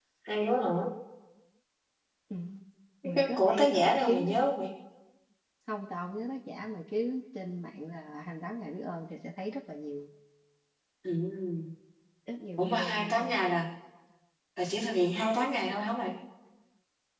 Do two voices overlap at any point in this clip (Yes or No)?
Yes